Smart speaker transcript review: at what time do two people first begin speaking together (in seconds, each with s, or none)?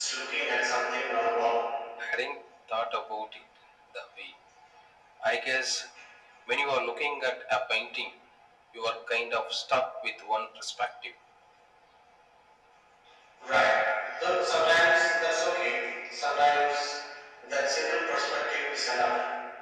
none